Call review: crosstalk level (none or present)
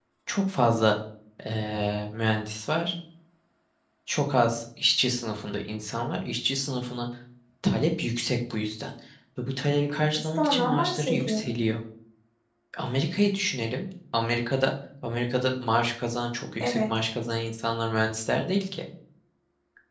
present